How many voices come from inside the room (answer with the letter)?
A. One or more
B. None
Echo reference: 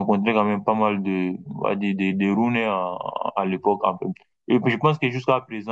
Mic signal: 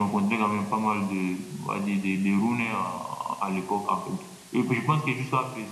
B